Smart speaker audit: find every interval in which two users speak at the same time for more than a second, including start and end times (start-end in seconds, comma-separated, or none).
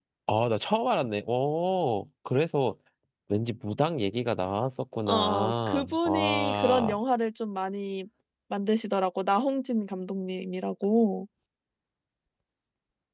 5.1-7.0